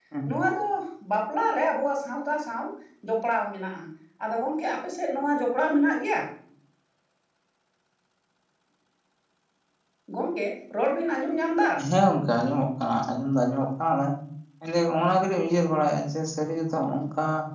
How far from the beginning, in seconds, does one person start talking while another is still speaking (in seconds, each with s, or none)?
none